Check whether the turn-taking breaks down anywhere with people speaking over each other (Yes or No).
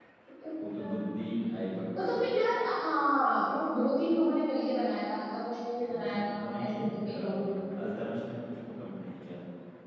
Yes